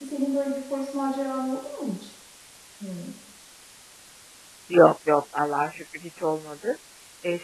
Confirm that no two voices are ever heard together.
Yes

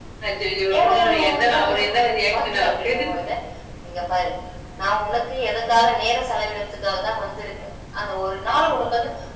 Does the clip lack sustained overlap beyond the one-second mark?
No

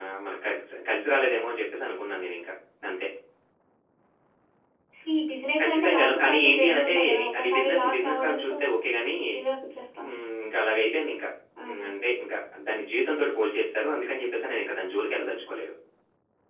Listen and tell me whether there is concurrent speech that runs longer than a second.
Yes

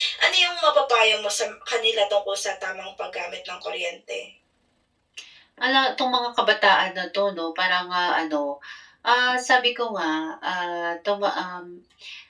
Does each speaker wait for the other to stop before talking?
Yes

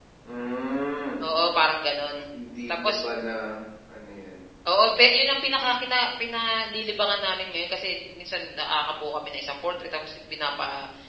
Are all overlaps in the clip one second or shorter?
Yes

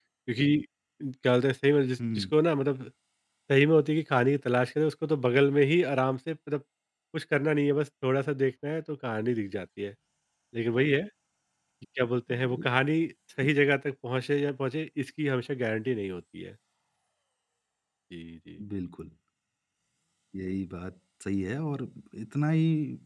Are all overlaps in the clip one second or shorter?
Yes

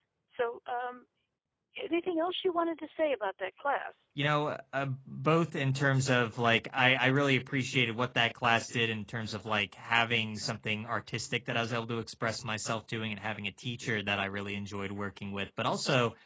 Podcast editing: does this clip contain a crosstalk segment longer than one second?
No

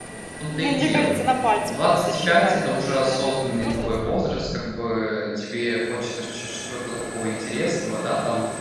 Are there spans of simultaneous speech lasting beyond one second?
Yes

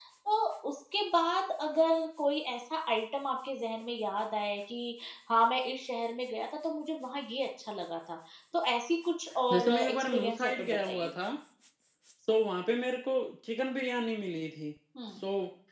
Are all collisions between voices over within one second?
No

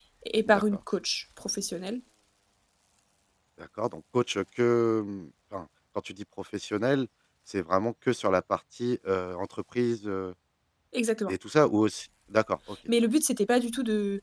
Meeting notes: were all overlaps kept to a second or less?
Yes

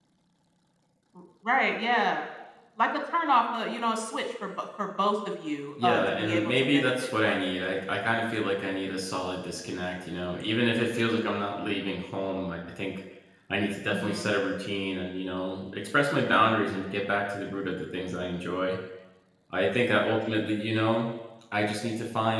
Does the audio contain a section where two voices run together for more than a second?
Yes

